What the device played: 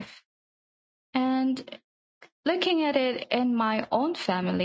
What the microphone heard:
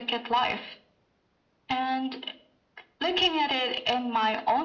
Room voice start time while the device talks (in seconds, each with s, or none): none